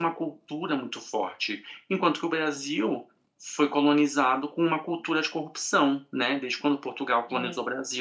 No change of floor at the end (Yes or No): Yes